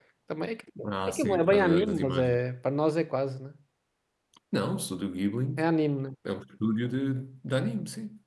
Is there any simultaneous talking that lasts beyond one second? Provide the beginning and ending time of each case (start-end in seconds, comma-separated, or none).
1.1-2.4